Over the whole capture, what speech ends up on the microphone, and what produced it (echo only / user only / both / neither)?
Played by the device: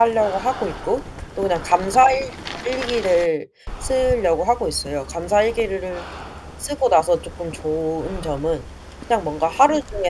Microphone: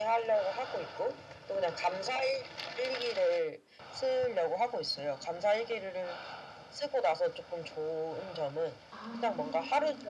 both